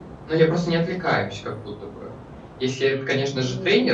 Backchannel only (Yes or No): Yes